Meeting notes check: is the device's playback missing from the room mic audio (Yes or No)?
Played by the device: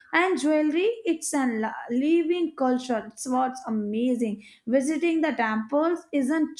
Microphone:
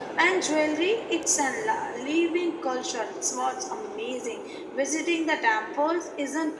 No